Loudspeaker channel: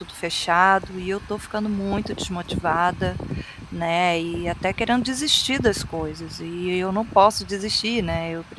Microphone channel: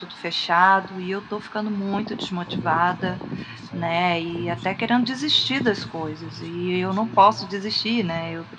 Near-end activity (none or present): present